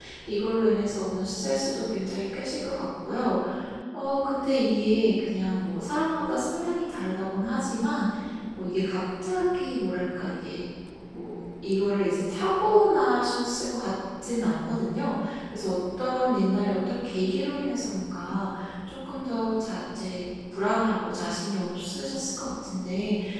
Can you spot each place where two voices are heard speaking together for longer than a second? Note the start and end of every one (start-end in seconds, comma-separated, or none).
none